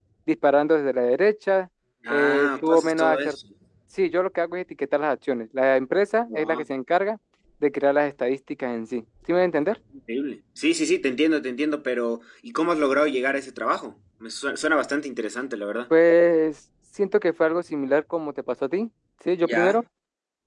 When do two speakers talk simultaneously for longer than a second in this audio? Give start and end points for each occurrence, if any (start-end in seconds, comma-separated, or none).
2.1-3.4